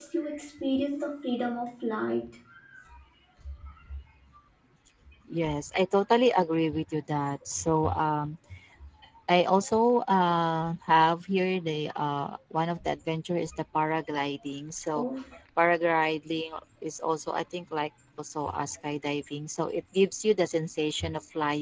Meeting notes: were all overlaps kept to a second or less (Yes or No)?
Yes